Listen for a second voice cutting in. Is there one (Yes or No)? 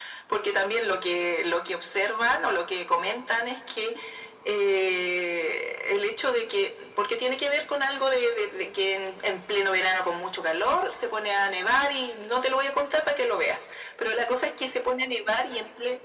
No